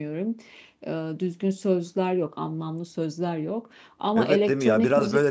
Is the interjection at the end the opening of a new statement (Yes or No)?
Yes